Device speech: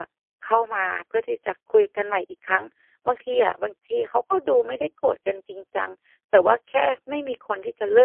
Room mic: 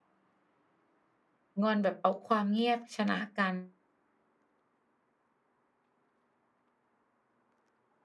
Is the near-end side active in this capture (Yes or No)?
Yes